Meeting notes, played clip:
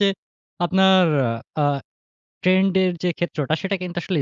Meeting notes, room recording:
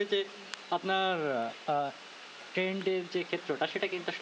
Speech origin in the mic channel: echo only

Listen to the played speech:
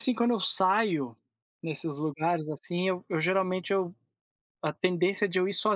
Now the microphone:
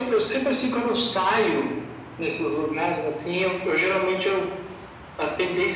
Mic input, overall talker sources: echo only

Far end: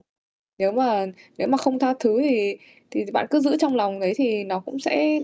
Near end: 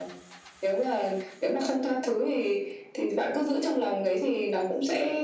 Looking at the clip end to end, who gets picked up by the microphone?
echo only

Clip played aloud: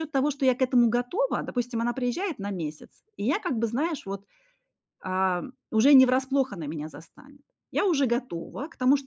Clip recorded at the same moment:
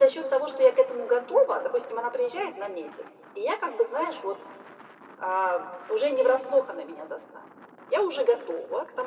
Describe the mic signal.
echo only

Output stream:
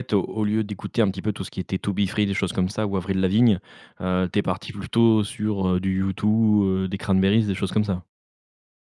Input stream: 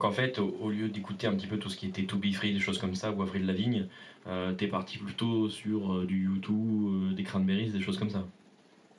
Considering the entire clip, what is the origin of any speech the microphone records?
echo only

